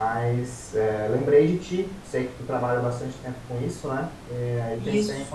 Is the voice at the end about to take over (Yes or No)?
No